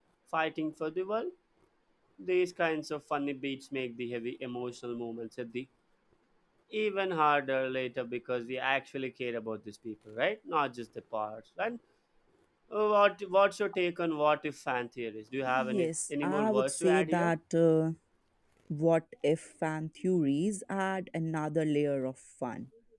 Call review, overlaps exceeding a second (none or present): present